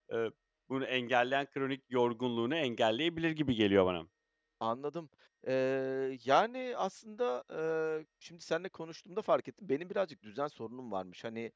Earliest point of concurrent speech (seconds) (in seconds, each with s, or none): none